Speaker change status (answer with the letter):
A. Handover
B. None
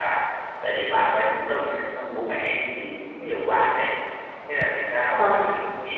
B